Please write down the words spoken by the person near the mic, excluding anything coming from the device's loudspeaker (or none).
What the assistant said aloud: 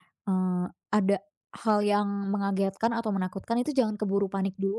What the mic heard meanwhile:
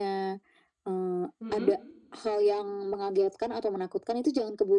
Mhm.